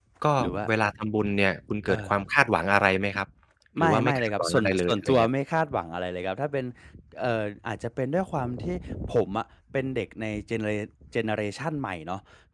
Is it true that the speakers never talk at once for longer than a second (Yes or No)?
No